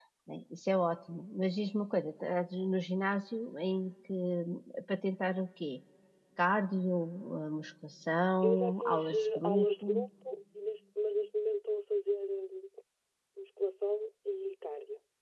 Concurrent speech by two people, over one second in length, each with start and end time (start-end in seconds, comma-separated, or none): 8.5-10.1